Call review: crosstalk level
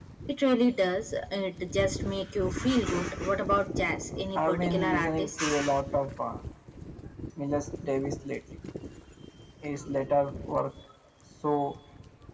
present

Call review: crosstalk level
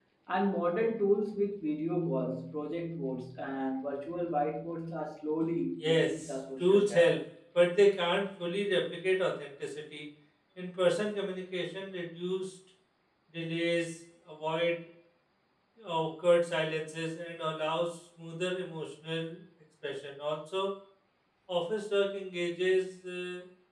present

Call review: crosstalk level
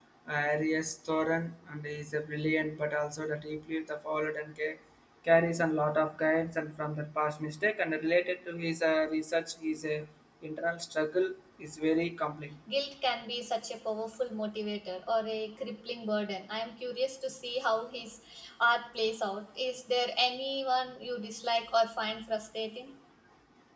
none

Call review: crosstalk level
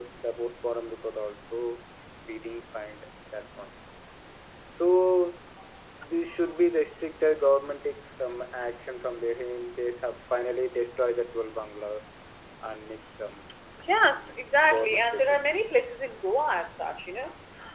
present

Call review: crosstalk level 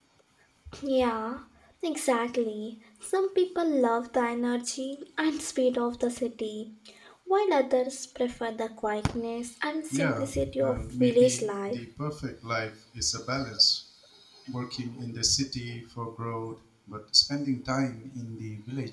present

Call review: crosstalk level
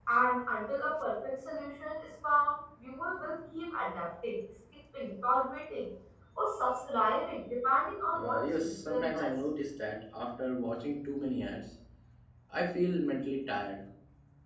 present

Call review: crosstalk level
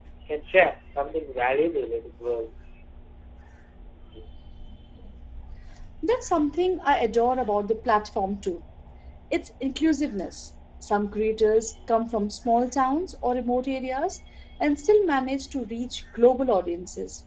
none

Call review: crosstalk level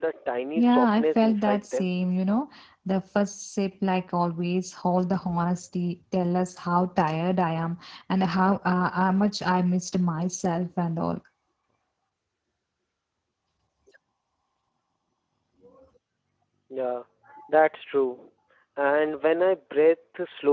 present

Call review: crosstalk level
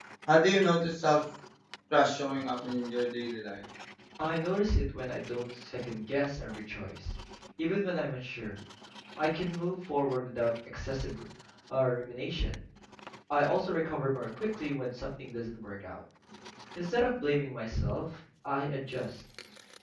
none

